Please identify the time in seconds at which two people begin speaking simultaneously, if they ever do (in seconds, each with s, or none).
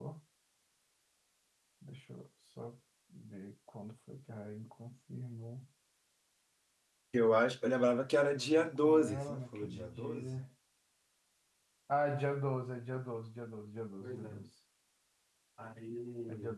8.3 s